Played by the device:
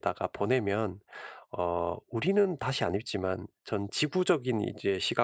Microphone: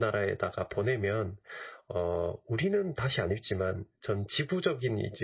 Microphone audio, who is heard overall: echo only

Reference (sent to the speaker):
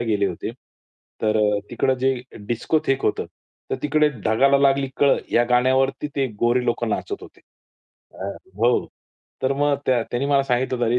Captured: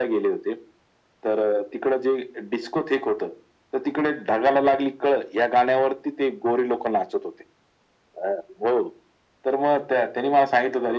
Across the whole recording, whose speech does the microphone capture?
echo only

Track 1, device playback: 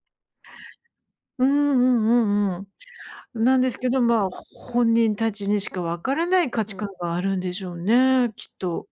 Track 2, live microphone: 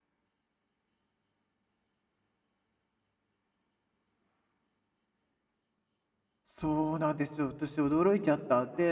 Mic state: user only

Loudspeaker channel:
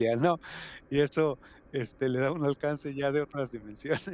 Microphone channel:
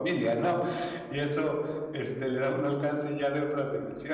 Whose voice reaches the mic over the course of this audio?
echo only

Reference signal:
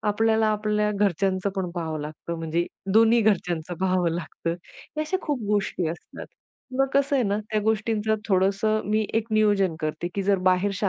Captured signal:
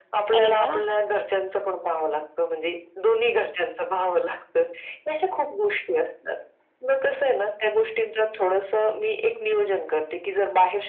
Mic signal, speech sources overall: both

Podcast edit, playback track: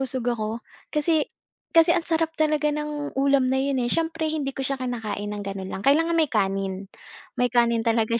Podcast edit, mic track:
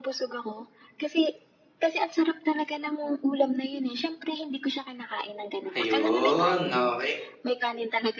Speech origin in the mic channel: both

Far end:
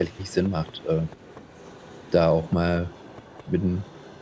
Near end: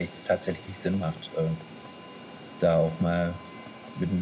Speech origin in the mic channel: echo only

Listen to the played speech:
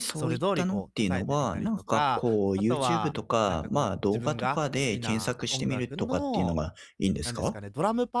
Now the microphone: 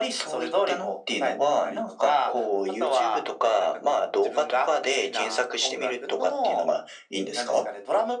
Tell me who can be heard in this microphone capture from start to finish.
echo only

